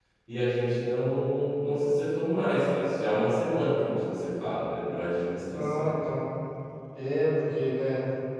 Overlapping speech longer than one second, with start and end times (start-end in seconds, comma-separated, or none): none